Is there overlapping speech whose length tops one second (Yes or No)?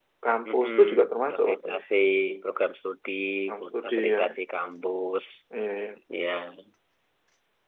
Yes